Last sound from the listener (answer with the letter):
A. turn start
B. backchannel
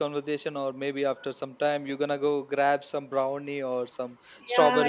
A